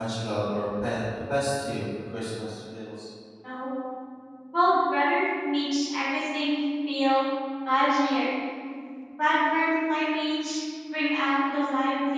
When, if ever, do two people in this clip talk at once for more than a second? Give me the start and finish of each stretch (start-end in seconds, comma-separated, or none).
none